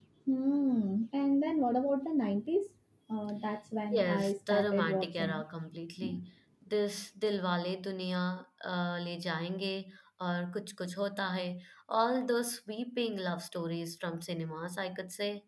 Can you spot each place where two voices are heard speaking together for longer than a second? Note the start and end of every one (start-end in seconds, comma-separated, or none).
3.9-5.4